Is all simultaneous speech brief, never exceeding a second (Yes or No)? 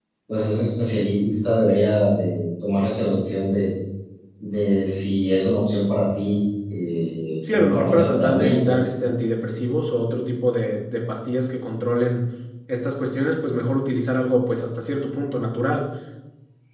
No